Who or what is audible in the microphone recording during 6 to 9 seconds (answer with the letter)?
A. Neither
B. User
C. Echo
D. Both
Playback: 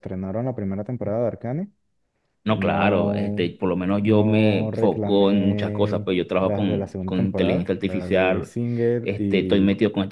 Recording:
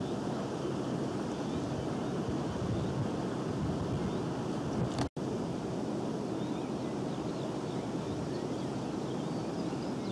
A